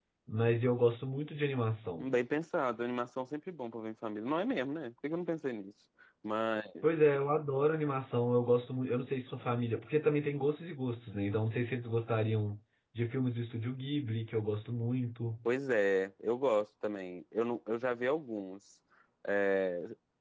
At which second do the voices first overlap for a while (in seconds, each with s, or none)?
none